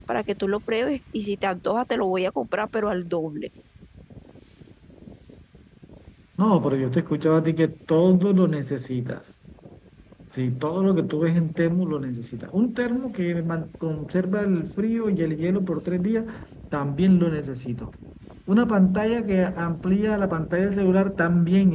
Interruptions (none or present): none